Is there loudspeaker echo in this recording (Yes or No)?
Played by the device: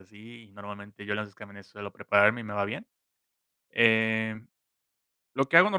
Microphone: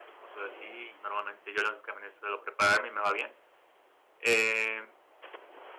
Yes